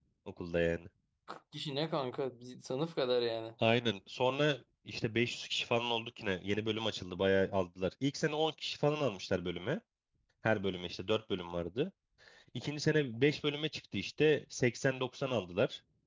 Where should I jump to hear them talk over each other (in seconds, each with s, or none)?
none